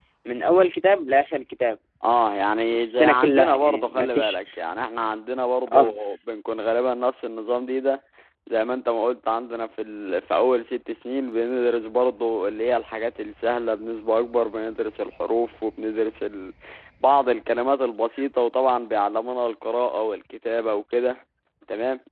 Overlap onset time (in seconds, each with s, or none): 2.7 s